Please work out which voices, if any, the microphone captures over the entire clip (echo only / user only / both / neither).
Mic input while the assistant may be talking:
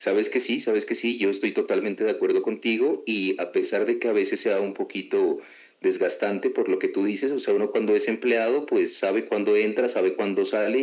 echo only